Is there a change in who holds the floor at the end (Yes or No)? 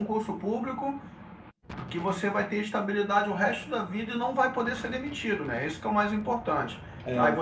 No